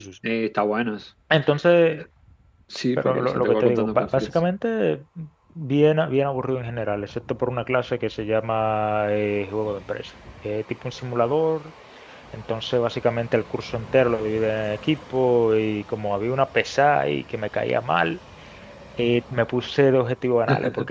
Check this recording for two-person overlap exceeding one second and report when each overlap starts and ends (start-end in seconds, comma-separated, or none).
3.0-4.3